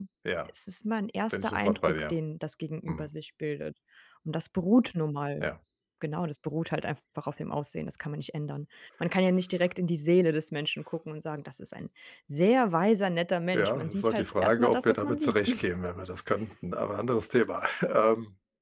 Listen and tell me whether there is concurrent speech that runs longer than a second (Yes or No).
Yes